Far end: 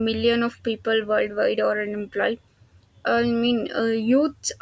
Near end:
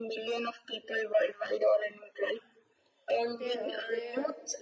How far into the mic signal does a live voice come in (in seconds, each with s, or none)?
3.3 s